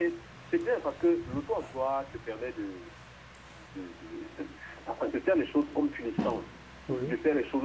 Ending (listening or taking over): listening